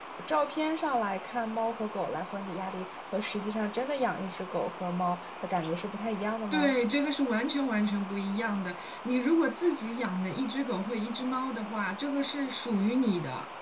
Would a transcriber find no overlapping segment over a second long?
Yes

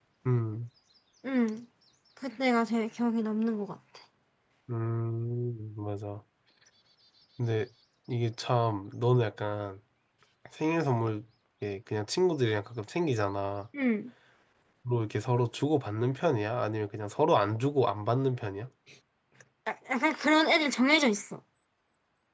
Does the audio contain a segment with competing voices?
No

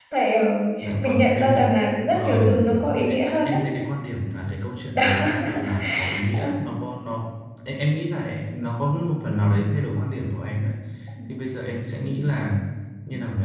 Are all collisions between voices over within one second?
No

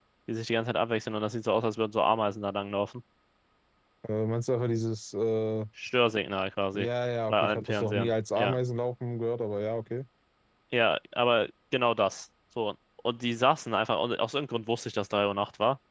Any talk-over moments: Yes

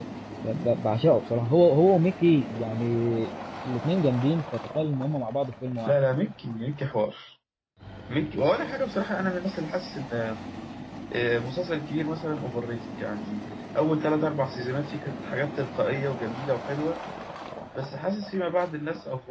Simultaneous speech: No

